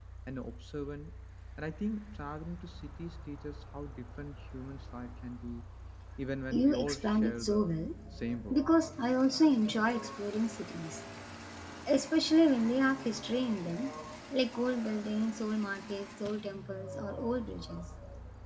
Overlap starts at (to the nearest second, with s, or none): 7 s